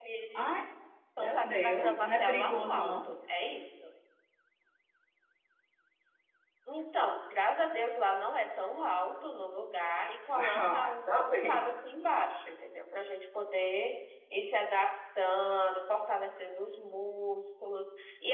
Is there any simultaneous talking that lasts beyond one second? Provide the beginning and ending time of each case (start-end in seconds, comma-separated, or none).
1.2-3.1, 10.3-11.6